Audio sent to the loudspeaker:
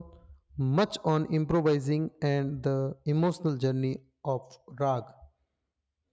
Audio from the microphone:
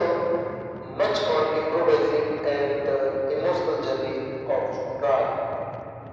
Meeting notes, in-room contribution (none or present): none